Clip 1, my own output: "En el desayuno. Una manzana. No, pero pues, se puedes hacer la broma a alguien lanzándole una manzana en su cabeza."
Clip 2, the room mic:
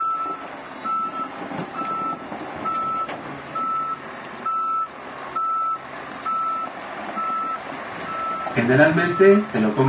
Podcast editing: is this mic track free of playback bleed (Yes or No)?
Yes